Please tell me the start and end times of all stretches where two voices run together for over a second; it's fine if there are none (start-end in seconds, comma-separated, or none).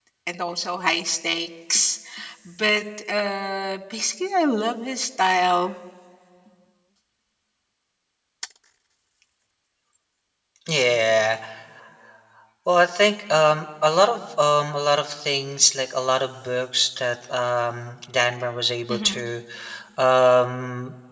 none